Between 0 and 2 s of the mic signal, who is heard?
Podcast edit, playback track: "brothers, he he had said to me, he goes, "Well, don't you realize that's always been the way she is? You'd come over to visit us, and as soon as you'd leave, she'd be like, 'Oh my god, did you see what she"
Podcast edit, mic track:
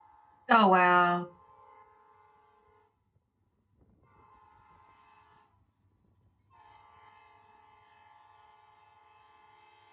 user only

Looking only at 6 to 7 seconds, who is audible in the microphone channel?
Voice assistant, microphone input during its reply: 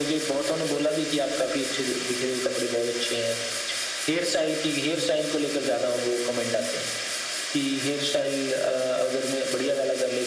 echo only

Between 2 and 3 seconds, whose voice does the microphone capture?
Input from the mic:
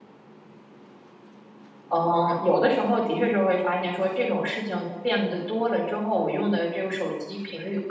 user only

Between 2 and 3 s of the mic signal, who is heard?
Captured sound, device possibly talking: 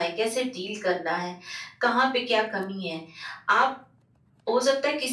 echo only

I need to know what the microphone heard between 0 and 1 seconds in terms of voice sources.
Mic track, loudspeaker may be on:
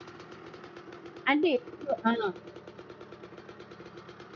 neither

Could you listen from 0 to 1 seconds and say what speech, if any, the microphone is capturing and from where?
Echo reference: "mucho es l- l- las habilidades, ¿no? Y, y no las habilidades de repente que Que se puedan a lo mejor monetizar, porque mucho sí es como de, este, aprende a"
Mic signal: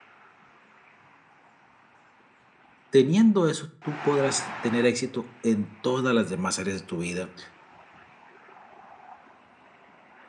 neither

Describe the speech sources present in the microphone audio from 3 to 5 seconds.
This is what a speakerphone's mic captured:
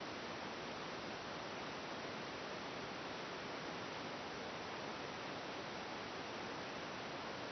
neither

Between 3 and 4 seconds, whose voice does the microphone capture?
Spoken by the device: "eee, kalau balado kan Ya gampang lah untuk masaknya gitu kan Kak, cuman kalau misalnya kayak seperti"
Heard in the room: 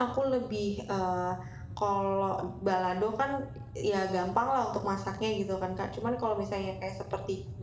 echo only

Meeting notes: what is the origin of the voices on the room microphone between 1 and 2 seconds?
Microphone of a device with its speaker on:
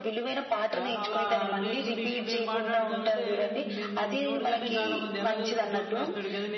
both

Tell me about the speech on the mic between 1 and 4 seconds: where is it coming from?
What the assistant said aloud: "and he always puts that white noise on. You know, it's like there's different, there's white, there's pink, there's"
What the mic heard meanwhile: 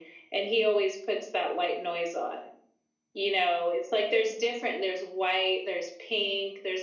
echo only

